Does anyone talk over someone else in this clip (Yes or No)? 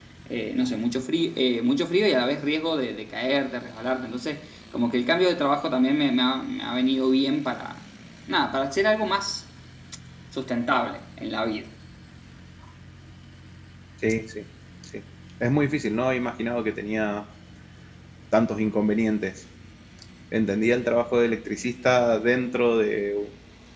No